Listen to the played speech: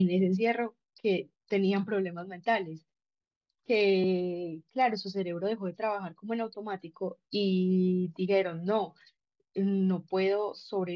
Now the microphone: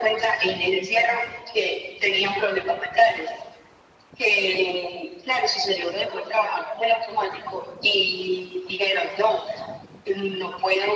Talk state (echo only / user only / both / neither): echo only